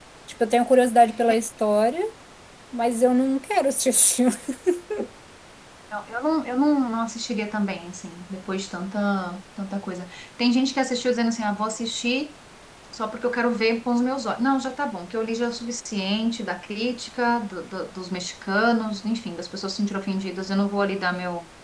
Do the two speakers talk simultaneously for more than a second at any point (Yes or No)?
No